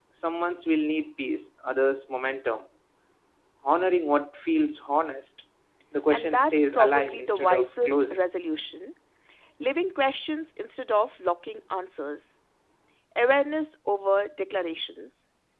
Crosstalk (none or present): present